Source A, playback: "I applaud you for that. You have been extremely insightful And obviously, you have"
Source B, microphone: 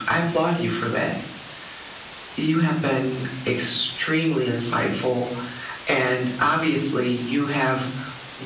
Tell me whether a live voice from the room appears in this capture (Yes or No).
No